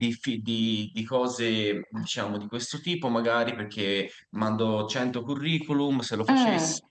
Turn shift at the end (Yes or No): No